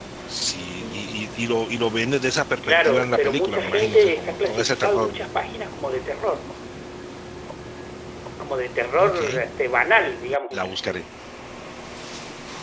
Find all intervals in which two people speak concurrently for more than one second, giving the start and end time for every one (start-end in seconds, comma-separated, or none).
2.6-5.2